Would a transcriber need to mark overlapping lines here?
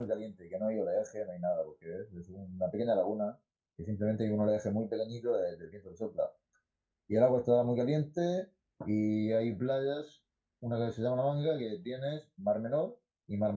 No

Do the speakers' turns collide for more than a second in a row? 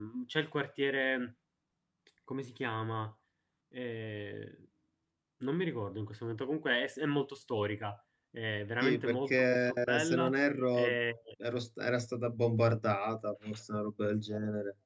Yes, from 8.8 s

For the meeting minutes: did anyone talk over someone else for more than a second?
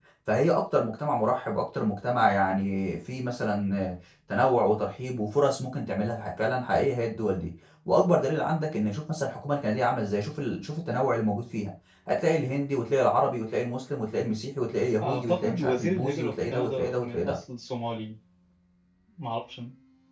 Yes, from 15.0 s

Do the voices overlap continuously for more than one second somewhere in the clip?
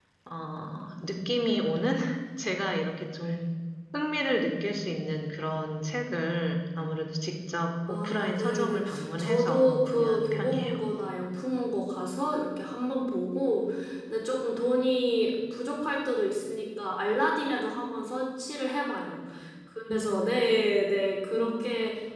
Yes, from 7.9 s

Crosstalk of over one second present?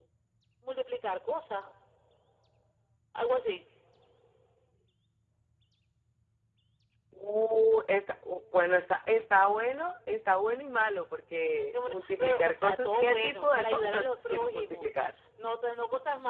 Yes, from 11.8 s

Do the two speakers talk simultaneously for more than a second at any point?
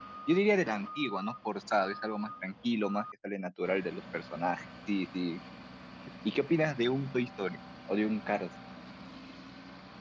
No

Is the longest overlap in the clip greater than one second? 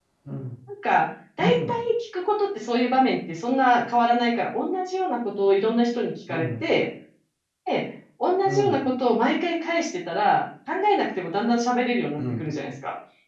No

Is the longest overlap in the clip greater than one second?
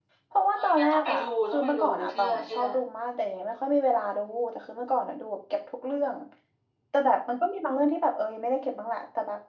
Yes, from 0.6 s

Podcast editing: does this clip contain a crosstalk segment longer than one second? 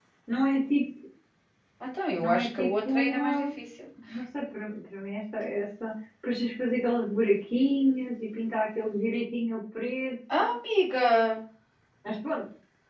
Yes, from 2.2 s

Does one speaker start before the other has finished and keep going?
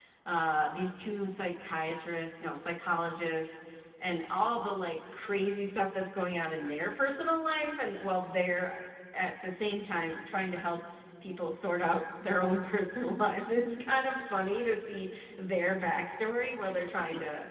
No

